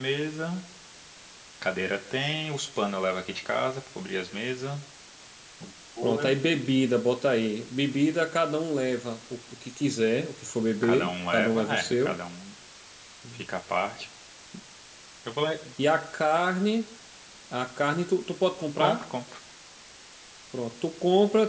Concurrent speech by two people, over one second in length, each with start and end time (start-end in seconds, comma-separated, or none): 10.8-12.2